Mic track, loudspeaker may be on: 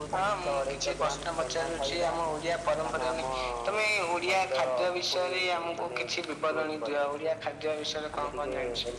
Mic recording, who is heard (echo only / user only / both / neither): echo only